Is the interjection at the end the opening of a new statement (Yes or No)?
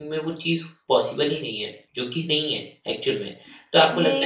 No